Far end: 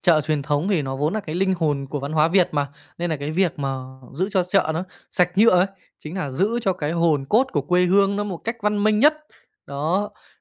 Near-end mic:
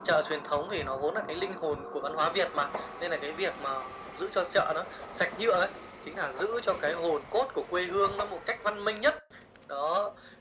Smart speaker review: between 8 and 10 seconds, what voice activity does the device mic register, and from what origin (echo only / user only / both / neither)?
echo only